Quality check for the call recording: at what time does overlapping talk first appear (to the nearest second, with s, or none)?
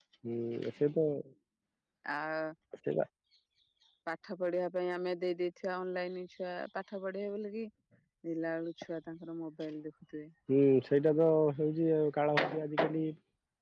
none